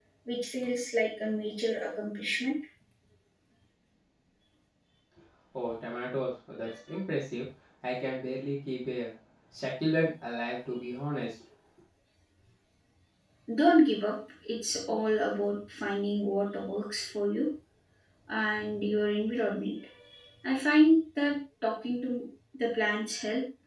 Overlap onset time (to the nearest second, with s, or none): none